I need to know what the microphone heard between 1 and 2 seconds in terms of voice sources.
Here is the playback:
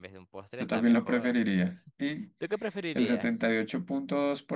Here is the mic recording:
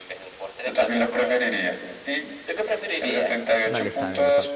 echo only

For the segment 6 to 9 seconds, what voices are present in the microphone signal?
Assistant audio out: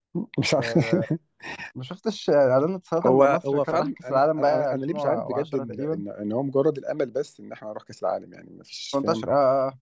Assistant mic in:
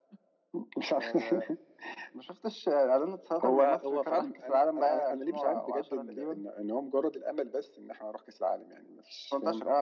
echo only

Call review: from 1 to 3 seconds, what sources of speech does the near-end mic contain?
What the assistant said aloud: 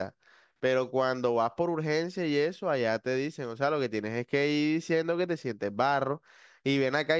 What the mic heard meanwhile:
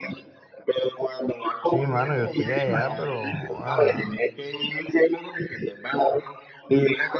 both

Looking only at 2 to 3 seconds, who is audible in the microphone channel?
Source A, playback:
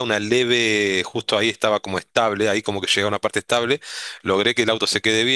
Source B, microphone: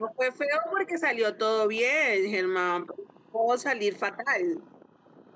user only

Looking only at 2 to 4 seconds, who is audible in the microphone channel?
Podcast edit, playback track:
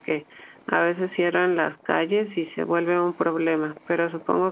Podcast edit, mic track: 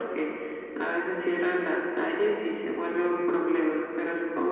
echo only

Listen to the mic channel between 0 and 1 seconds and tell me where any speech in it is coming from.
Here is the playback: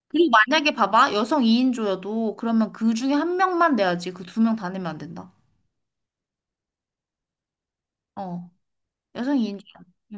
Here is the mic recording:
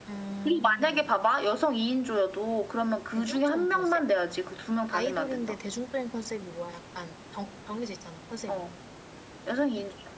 both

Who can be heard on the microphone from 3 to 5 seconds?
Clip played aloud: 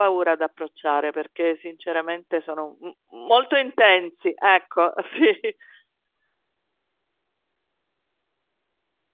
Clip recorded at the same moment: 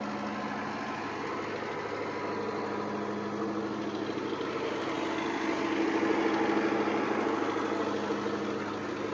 neither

